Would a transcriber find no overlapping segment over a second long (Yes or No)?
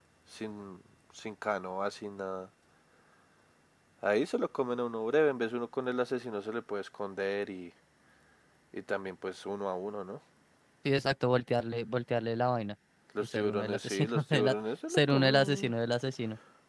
No